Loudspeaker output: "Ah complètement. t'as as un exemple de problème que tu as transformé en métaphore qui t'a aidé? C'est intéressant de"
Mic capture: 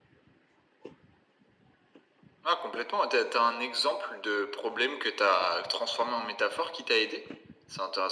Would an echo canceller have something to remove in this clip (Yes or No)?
Yes